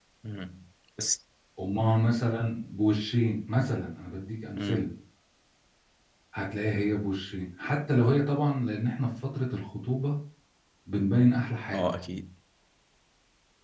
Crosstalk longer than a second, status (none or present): none